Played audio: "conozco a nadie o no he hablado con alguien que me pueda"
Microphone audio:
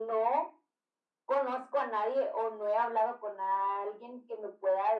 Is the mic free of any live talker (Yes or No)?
Yes